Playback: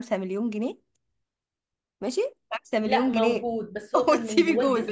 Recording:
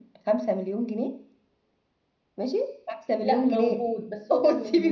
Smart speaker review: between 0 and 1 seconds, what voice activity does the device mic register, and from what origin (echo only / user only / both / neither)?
echo only